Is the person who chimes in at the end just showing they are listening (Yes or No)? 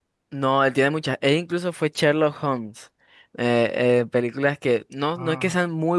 Yes